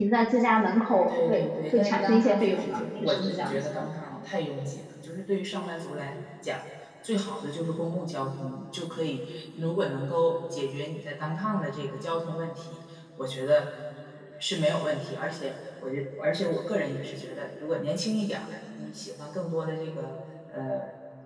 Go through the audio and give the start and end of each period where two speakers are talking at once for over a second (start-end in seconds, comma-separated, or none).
1.1-3.8